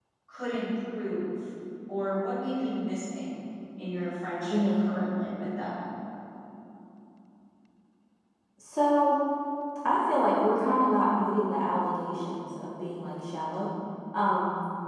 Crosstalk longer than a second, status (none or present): none